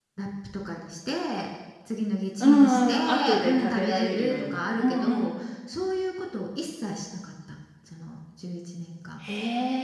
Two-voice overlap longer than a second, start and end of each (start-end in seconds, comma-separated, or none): 2.4-5.5